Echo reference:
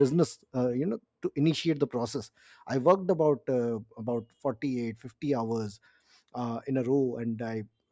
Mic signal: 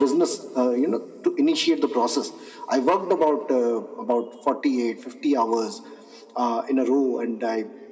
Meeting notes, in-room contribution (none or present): none